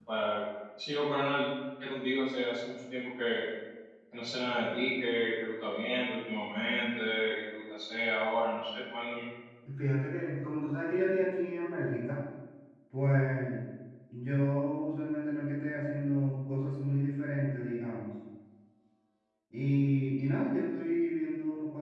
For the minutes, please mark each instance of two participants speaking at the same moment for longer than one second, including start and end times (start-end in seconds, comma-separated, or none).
none